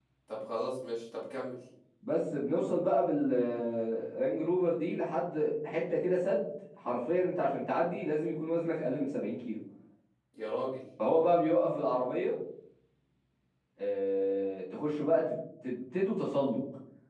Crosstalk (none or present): none